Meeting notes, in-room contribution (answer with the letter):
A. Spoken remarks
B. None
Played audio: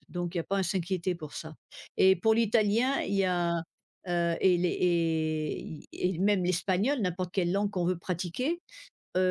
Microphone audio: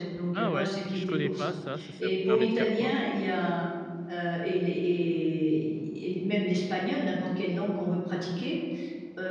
A